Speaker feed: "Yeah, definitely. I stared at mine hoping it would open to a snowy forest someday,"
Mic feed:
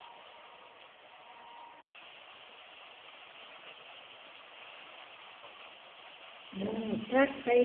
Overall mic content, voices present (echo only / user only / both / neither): user only